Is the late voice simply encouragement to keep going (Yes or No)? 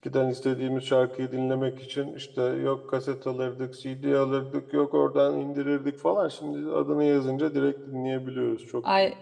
No